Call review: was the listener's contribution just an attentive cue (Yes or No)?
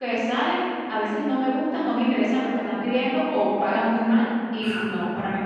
Yes